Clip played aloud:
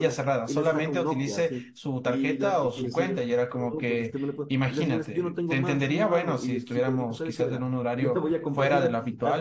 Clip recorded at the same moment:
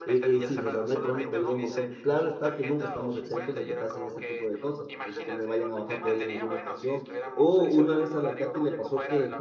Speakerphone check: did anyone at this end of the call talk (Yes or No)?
Yes